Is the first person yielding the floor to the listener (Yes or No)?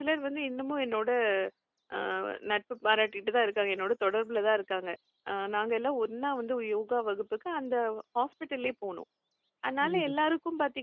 No